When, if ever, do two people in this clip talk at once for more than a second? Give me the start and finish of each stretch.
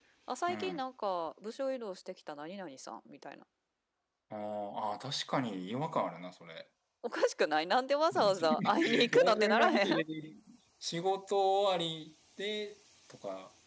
8.2-9.9

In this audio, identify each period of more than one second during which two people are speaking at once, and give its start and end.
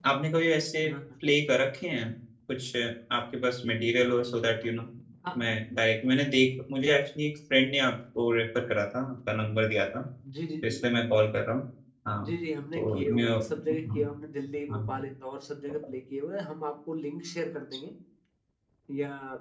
12.8-14.0

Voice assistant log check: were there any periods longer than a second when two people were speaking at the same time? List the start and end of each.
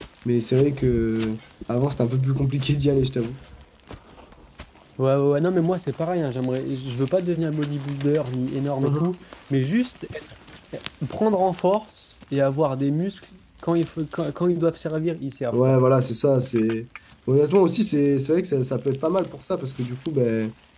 none

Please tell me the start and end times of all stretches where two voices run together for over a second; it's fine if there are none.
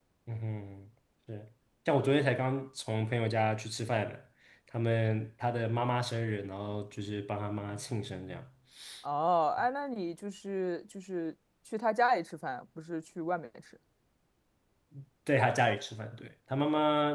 none

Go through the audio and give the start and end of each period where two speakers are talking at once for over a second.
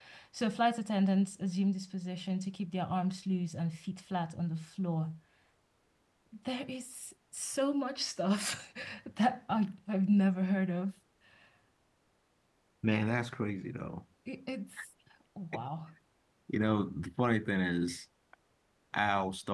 none

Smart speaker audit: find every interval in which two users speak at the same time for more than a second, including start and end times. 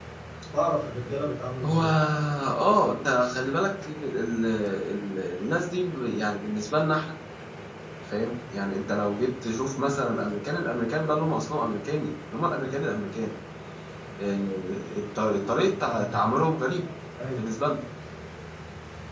none

